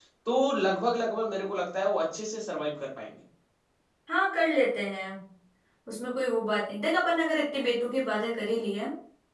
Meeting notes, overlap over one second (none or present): none